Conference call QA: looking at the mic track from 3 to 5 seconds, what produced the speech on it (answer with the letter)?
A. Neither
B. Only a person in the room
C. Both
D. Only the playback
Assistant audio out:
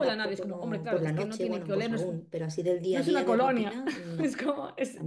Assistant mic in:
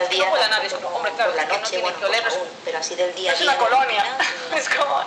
D